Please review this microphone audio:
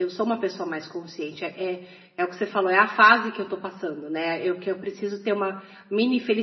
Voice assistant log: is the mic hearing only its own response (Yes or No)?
No